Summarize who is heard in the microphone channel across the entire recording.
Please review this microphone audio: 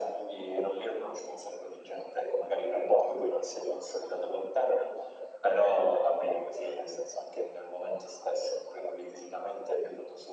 echo only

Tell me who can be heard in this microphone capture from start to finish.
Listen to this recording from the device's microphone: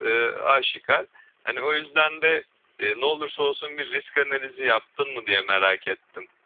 user only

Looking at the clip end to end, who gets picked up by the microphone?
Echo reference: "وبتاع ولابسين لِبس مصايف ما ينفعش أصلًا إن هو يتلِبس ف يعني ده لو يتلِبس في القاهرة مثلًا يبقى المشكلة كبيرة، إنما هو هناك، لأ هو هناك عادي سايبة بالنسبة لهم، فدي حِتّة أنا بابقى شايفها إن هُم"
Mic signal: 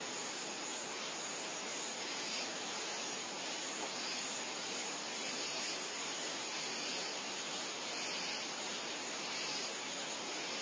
neither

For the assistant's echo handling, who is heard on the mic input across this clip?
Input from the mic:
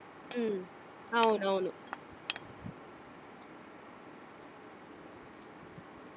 user only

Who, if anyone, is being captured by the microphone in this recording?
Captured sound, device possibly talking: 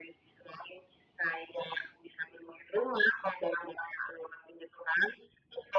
echo only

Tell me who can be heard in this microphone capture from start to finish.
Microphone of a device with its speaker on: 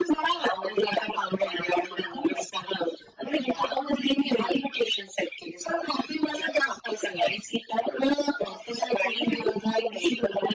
echo only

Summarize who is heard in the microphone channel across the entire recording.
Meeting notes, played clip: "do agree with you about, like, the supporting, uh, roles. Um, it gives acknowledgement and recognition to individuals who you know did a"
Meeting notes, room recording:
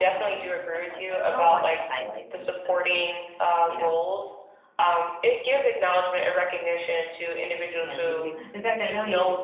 both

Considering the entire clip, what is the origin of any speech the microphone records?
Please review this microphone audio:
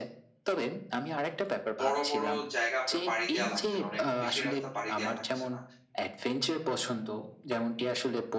both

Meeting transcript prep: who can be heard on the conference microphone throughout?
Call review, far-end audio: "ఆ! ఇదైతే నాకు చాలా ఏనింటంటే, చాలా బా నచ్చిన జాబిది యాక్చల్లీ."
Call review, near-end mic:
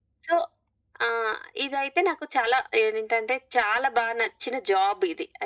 echo only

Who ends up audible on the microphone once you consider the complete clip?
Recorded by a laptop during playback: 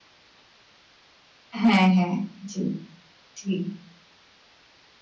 user only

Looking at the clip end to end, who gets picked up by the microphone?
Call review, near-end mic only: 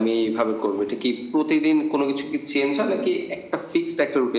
echo only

